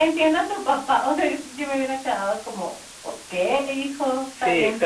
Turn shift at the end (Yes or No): Yes